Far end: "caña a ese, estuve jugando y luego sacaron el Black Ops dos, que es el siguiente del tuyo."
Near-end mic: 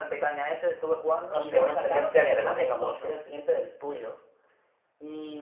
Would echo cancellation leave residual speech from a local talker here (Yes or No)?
Yes